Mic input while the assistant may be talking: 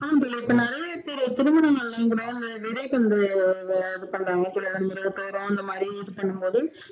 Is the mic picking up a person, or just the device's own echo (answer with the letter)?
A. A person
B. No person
B